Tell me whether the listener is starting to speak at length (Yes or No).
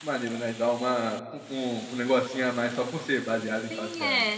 Yes